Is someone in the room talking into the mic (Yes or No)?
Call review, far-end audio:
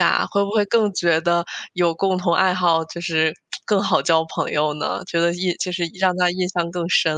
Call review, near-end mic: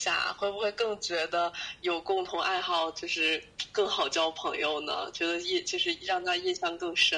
No